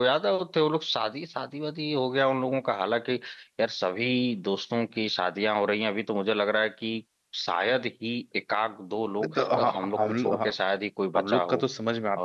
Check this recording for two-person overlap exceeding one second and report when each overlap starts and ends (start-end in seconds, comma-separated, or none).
9.2-10.5